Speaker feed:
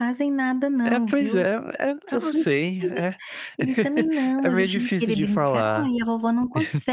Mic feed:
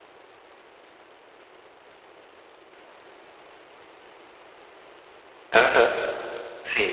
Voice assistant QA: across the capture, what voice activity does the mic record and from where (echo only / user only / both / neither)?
user only